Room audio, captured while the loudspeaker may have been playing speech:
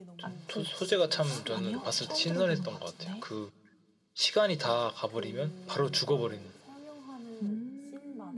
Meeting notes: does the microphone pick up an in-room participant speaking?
Yes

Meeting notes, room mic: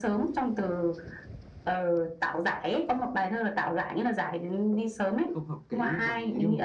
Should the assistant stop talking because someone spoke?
Yes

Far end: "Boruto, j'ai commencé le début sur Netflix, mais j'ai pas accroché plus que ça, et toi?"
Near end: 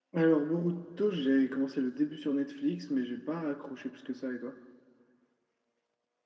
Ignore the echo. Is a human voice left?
No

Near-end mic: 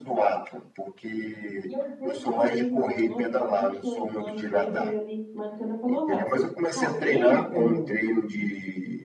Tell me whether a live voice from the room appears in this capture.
Yes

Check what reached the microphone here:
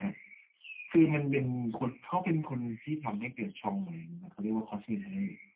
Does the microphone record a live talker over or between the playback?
No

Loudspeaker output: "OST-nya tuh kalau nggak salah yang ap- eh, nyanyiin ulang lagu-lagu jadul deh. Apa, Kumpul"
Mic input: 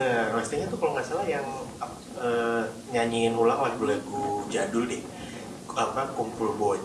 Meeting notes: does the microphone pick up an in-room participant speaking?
Yes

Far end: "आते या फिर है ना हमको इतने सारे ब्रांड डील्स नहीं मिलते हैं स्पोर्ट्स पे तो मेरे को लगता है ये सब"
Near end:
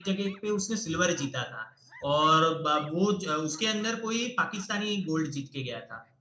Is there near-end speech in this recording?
Yes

